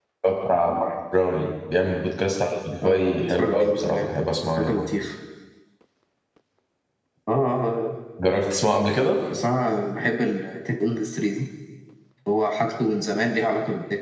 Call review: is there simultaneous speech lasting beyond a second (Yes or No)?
Yes